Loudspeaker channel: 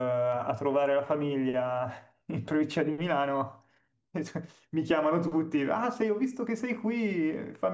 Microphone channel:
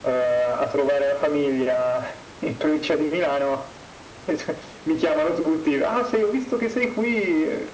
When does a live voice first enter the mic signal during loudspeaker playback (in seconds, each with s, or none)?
none